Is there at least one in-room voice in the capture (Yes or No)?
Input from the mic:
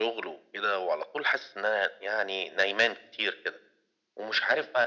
No